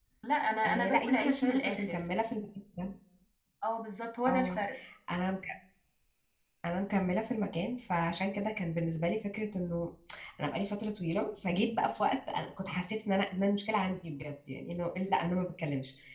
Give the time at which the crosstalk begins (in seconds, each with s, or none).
0.6 s